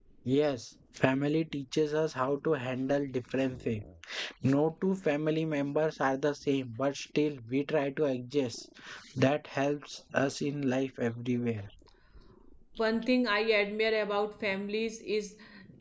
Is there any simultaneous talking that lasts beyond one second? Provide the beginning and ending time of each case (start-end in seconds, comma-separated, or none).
none